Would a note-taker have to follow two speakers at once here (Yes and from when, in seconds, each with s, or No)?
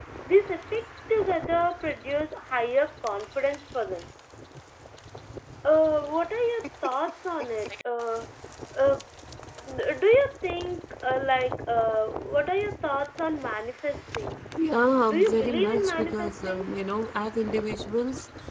Yes, from 15.1 s